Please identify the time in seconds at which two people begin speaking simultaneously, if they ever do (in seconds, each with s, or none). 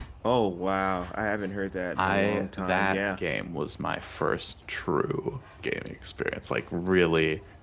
2.0 s